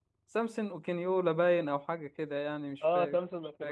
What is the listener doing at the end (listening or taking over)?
taking over